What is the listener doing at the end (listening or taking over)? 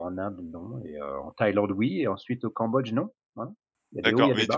taking over